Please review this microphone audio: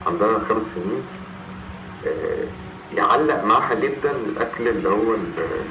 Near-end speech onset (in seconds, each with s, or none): none